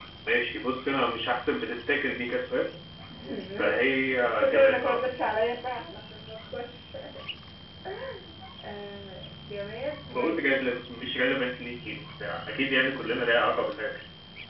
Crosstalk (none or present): present